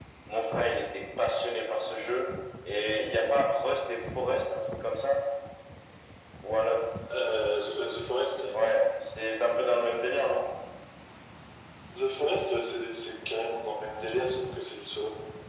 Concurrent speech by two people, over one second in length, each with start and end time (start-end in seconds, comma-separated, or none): none